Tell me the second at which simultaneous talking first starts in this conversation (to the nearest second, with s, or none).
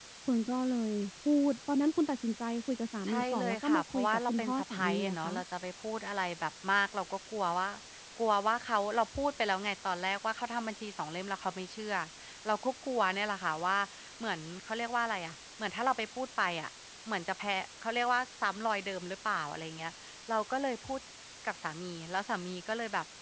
3 s